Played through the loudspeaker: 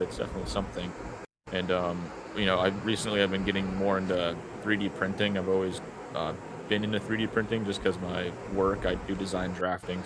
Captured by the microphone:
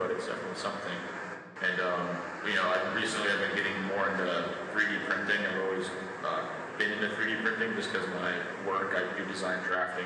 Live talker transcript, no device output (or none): none